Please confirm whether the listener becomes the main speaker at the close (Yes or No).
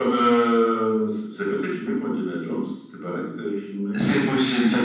Yes